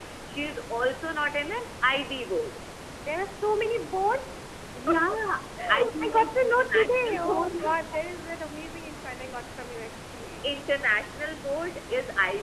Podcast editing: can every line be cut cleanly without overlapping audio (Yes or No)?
No